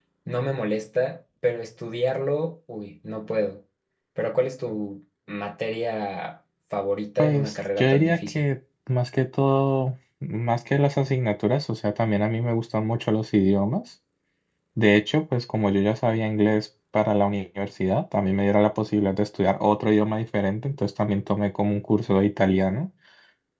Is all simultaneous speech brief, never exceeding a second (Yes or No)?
No